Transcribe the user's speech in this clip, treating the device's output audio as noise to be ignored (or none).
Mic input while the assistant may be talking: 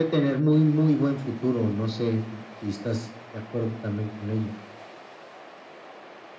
none